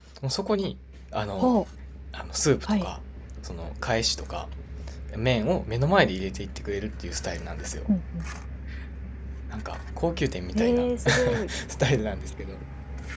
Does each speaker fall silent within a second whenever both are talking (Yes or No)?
Yes